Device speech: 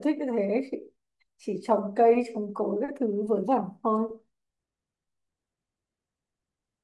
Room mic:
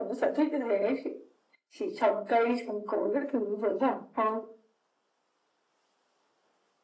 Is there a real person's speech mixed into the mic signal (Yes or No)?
No